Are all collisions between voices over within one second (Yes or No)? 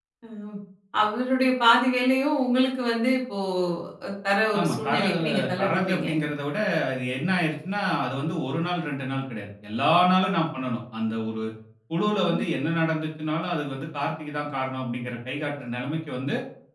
No